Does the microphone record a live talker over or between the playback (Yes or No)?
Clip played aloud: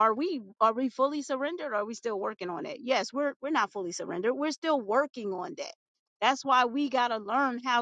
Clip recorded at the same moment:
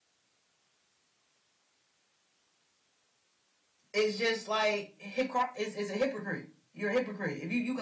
Yes